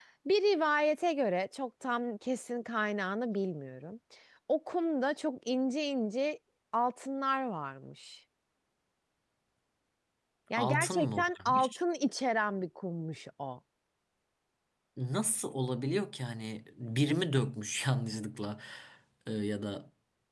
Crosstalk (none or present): present